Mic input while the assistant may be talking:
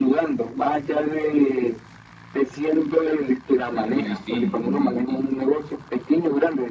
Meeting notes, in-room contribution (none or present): present